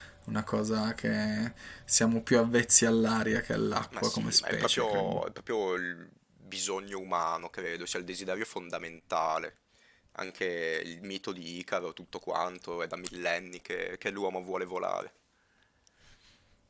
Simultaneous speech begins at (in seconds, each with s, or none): 3.9 s